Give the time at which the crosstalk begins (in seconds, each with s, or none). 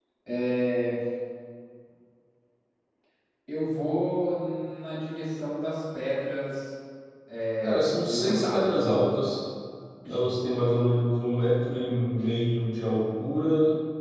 7.6 s